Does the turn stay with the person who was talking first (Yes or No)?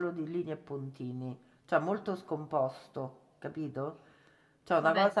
No